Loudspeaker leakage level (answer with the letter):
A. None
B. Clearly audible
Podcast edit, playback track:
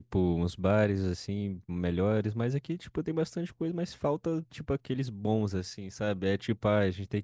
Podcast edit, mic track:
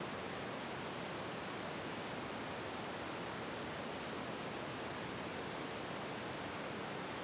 A